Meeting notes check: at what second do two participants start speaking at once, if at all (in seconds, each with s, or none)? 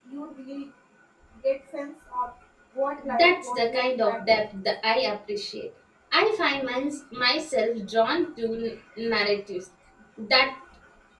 3.2 s